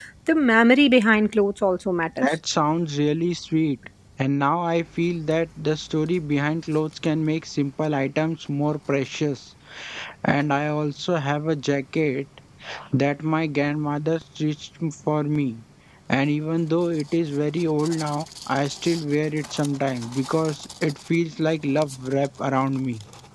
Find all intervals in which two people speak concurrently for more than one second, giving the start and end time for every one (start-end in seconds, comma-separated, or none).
none